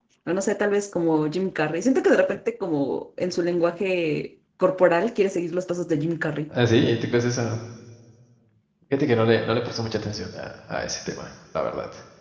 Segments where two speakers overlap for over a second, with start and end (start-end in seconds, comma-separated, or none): none